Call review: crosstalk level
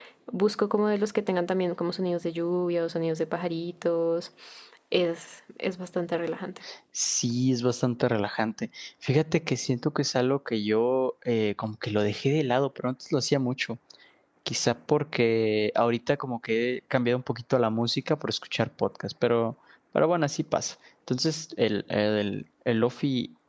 none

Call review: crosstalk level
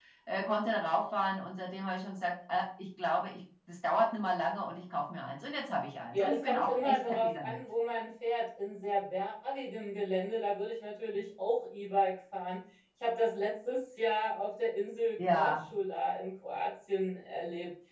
present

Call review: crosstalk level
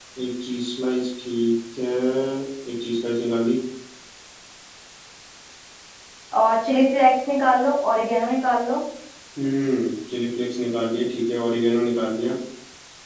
none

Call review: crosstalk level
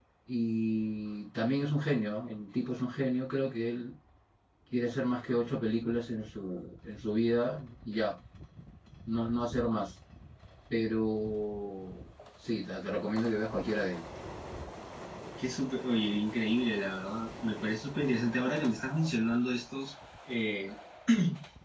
none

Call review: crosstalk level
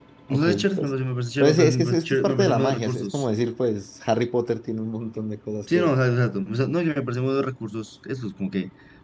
present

